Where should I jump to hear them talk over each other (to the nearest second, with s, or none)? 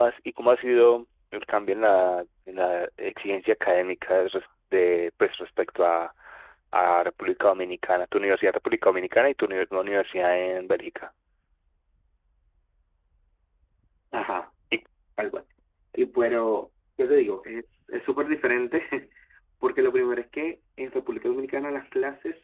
none